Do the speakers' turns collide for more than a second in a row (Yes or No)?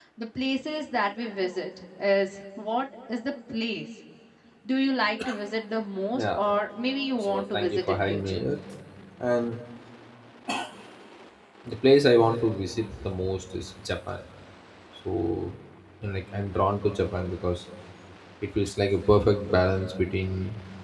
Yes